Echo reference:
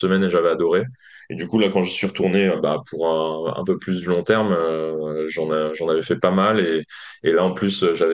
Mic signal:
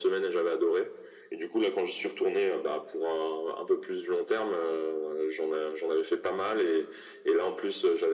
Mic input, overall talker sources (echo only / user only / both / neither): echo only